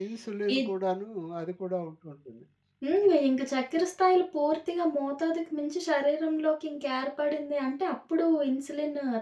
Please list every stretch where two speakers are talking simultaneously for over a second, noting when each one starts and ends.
none

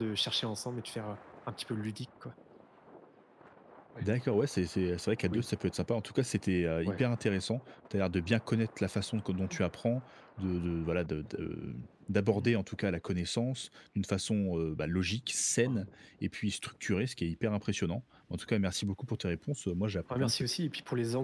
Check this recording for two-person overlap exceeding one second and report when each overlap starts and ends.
none

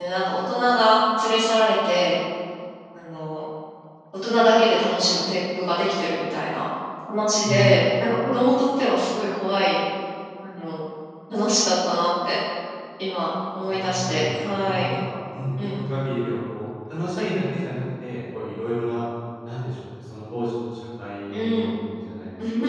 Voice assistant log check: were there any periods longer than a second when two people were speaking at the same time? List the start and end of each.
13.7-14.9

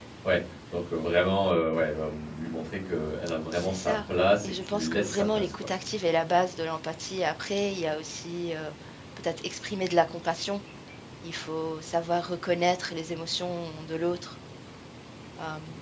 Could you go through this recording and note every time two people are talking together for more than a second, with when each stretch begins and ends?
4.4-5.7

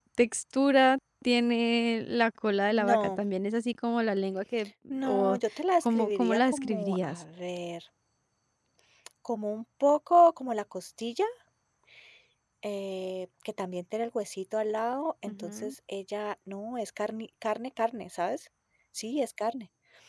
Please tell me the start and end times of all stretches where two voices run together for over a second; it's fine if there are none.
5.9-7.2

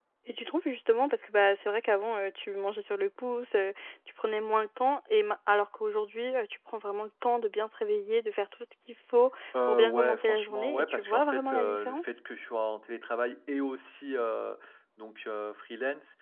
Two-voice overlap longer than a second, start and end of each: 9.7-12.0

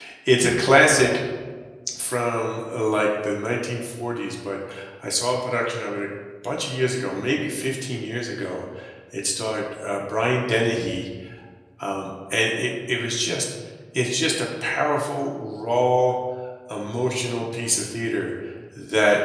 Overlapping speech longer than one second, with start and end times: none

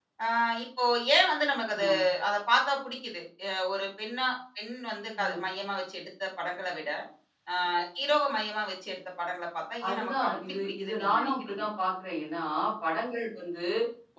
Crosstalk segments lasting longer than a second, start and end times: 9.9-11.6

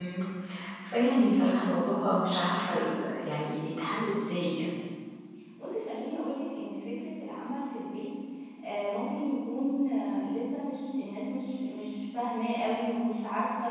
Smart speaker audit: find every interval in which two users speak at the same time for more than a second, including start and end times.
none

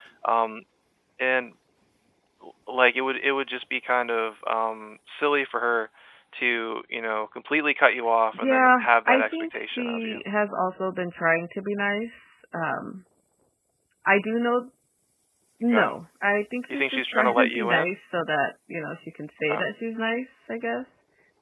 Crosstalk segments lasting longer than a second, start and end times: 8.3-10.2, 16.7-17.9

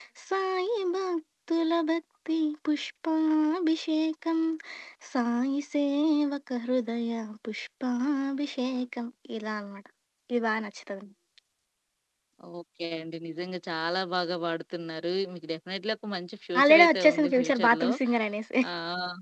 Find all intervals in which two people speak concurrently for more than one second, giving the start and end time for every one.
16.6-17.9

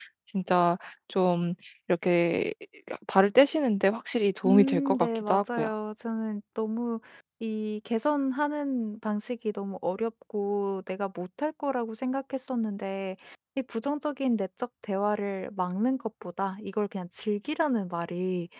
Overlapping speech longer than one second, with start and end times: 4.4-5.7

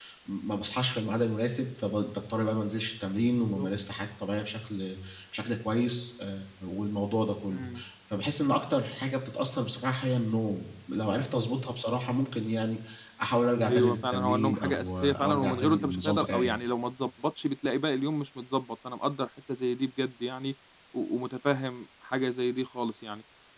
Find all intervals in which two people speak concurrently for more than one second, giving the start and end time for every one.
13.6-16.6

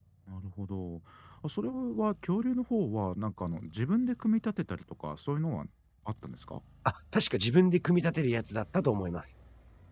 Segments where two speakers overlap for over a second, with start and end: none

